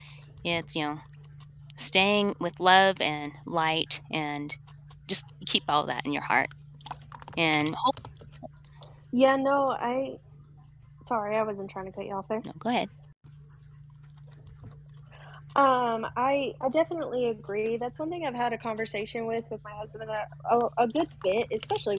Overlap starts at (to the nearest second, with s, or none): none